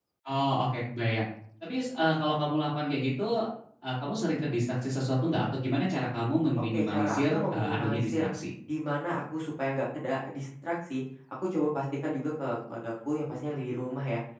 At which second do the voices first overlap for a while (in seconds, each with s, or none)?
6.6 s